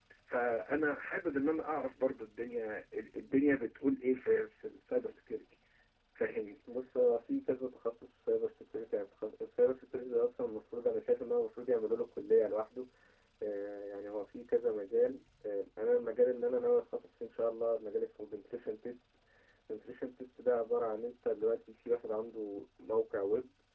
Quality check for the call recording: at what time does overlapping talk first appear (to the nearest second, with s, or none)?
none